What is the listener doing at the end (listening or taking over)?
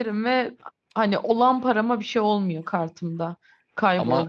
listening